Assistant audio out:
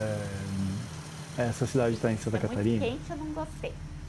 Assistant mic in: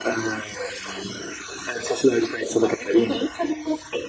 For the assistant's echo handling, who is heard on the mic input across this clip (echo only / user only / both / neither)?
echo only